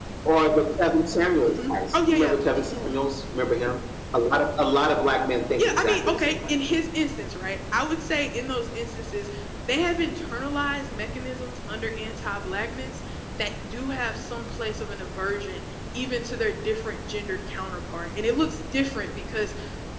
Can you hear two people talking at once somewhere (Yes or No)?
Yes